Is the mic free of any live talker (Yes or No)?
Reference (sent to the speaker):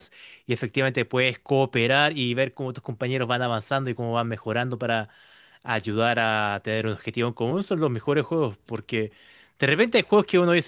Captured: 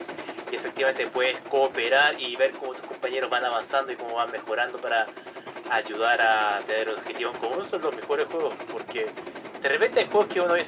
Yes